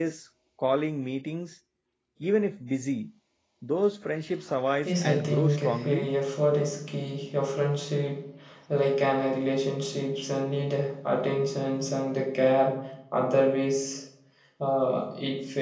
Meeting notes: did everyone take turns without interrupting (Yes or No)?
No